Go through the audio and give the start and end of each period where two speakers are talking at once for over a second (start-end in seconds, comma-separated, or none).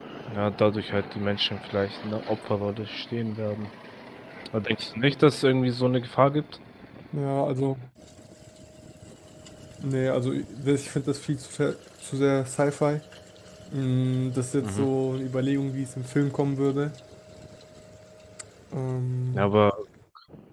none